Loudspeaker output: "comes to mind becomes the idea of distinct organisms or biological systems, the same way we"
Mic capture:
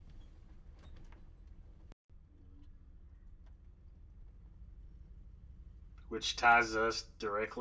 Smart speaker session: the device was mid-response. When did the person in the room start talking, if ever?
6.1 s

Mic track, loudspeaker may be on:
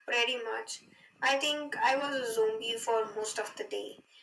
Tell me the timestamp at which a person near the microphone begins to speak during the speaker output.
none

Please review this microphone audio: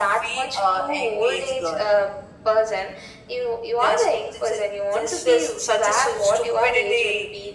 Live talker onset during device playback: none

